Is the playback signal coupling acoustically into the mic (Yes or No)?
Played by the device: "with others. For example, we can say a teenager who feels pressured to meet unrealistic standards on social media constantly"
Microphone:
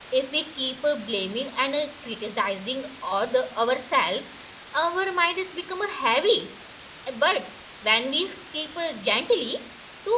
No